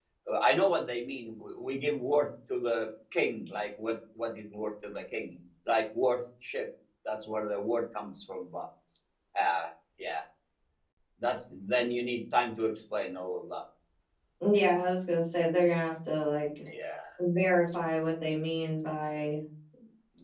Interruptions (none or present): none